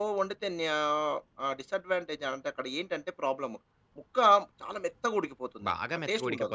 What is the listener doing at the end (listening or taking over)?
taking over